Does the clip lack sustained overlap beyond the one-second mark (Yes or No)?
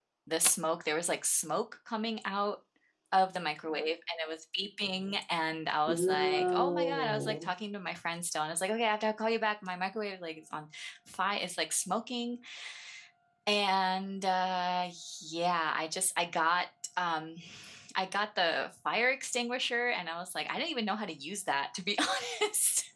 No